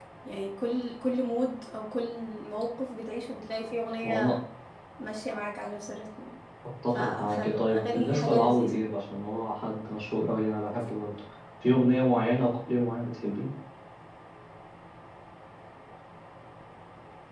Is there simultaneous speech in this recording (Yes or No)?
Yes